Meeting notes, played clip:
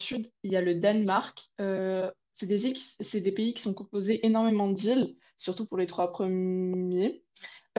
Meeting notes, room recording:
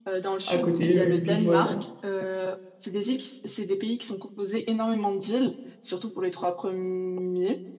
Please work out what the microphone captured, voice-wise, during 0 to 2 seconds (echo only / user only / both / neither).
both